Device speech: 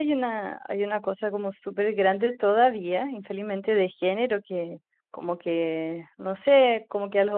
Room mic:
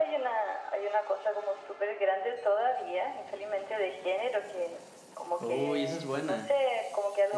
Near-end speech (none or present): present